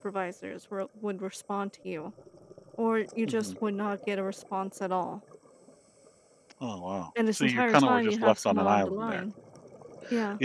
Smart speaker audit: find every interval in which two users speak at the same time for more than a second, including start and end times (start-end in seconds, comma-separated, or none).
7.3-9.2